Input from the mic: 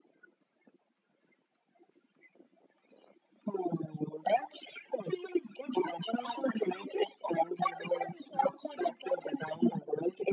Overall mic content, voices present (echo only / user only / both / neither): echo only